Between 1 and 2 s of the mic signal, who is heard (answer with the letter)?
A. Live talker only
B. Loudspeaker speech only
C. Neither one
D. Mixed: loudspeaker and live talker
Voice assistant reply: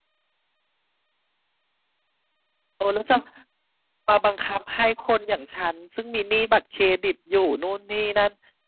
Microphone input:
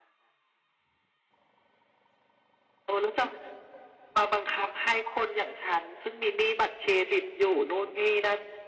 C